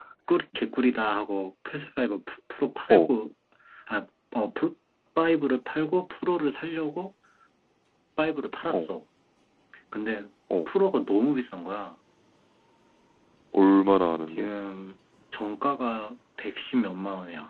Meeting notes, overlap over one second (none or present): none